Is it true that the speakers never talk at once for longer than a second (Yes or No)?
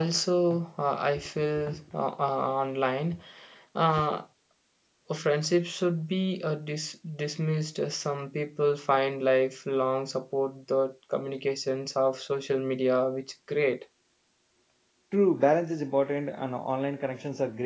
Yes